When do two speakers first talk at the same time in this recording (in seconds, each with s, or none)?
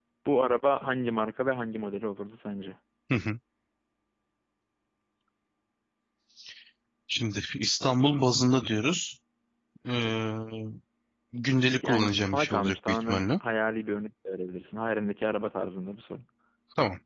11.8 s